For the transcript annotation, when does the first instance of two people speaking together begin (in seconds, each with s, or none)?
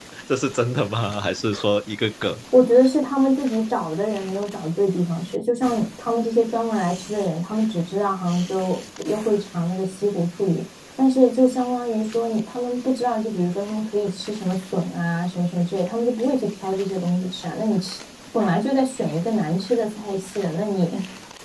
none